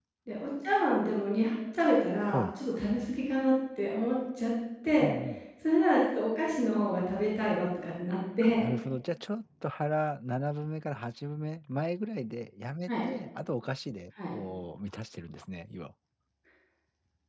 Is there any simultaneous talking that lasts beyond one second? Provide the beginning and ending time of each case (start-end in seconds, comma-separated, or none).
none